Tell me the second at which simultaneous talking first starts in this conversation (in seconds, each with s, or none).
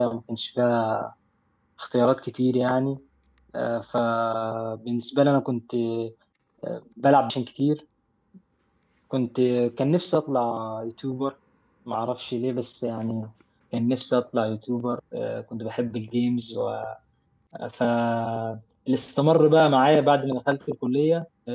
none